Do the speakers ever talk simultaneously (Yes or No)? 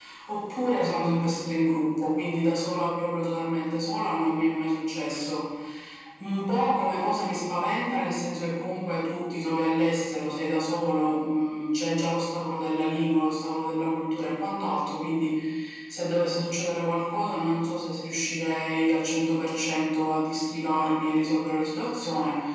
No